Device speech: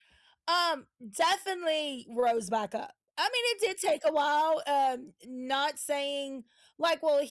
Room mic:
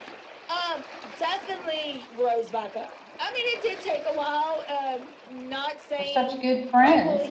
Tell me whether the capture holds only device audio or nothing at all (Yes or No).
No